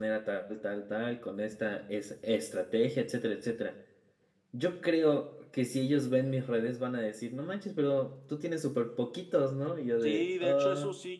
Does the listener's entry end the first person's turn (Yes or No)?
Yes